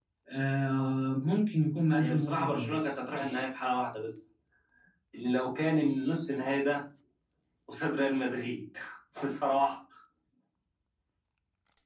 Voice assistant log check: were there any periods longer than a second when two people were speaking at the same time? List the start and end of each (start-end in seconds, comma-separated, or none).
2.0-3.4